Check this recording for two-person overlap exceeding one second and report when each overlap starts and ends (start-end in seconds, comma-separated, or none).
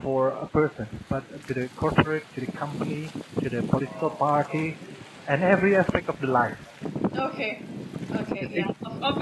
none